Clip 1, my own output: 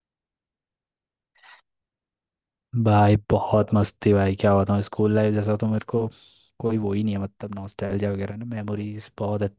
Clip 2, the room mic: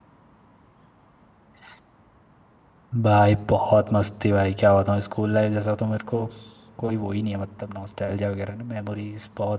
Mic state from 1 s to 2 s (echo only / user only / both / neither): neither